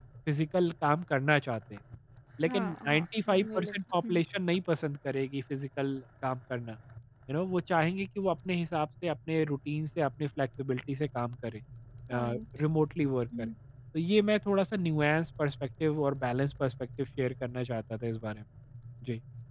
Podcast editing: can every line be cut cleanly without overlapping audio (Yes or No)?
No